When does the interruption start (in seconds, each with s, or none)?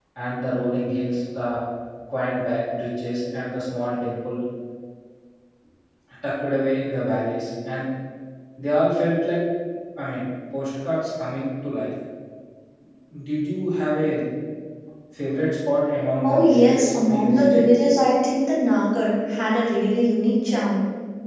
16.2 s